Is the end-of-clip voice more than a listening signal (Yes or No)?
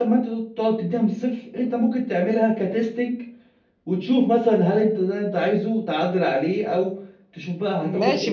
Yes